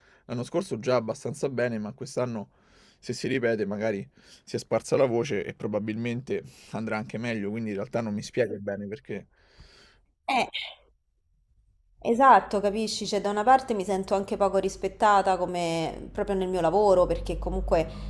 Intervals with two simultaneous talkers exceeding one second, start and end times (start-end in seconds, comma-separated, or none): none